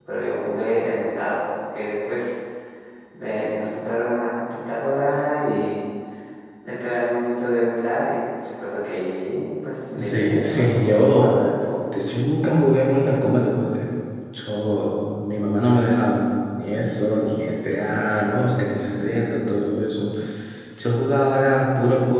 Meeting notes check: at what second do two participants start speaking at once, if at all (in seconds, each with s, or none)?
9.9 s